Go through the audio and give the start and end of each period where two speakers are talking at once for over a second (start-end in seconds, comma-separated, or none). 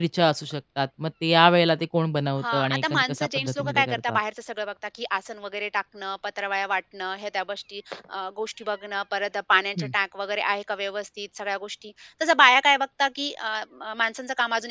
2.4-4.2